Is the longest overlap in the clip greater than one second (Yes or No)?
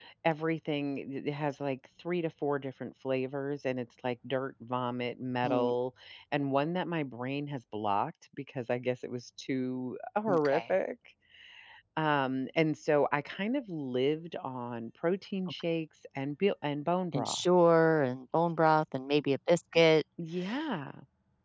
No